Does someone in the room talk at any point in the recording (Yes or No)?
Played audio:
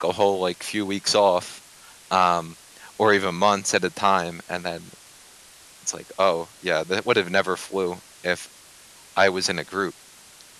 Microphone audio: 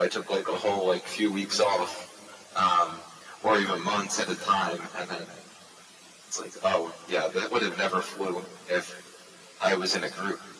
No